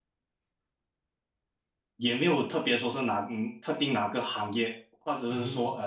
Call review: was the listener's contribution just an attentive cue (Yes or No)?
Yes